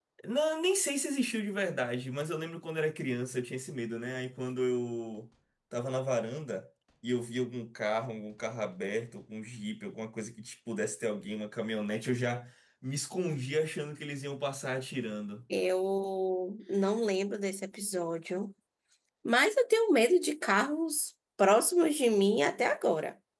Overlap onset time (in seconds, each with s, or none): none